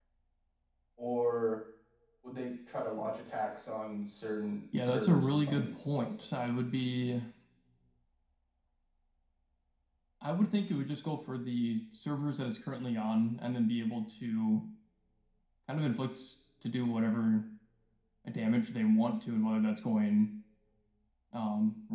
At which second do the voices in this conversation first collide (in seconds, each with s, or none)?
4.7 s